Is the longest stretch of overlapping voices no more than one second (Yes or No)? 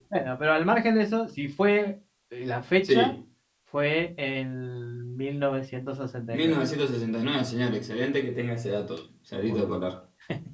Yes